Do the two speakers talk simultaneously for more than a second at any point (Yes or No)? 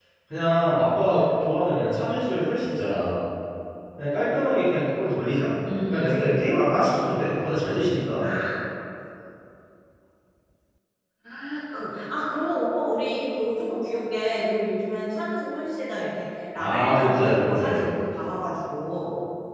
Yes